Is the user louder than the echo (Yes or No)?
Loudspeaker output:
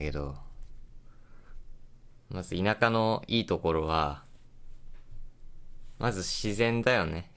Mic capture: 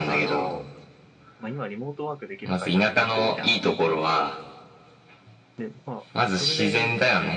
No